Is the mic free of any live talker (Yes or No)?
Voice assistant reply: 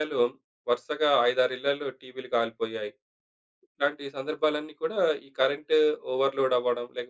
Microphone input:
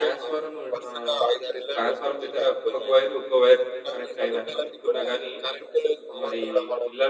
No